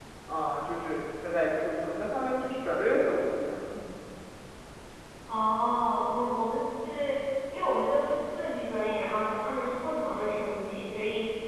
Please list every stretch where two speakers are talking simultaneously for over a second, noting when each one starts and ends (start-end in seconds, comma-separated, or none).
none